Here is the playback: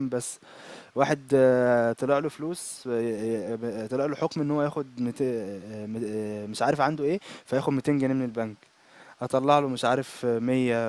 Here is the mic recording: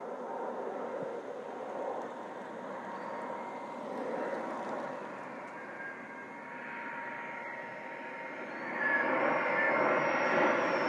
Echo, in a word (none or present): none